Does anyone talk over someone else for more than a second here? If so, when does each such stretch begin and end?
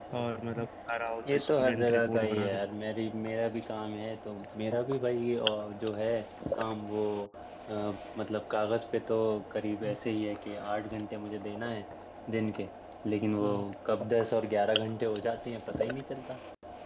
1.3-2.5

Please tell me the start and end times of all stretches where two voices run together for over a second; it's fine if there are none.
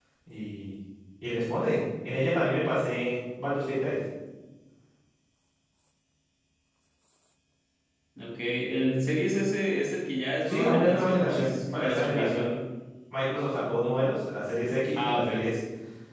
10.4-12.5

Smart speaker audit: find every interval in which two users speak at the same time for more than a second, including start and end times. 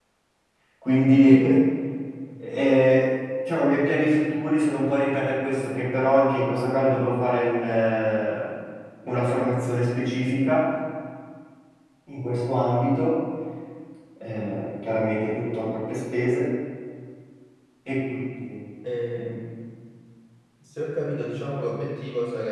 none

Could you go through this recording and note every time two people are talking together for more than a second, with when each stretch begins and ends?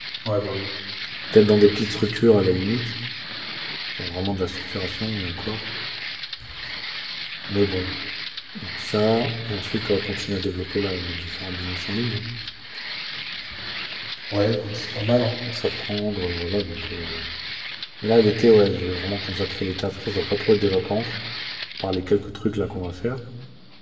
none

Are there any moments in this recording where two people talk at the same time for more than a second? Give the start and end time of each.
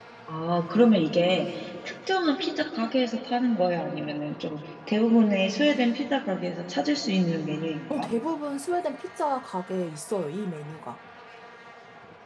none

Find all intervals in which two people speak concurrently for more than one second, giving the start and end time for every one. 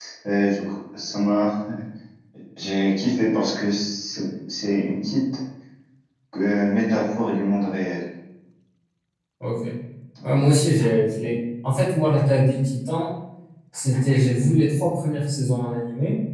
none

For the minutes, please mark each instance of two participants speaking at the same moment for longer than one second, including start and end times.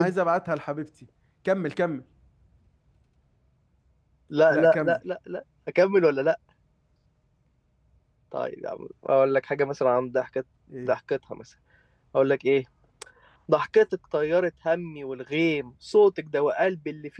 none

